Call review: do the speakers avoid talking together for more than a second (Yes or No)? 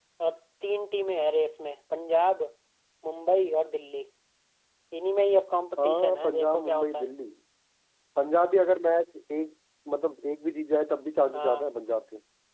No